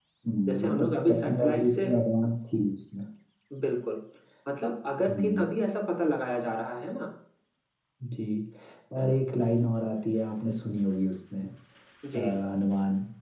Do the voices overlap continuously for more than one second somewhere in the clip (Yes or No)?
Yes